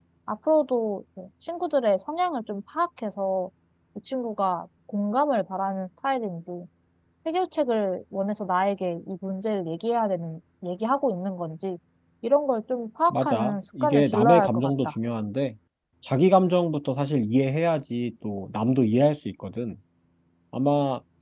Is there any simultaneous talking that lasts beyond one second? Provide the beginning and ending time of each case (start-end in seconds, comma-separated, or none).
13.1-14.9